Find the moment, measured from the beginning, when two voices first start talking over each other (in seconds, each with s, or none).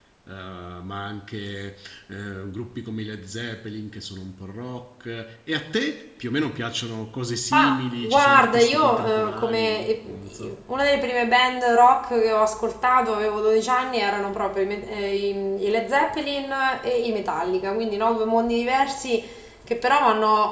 7.5 s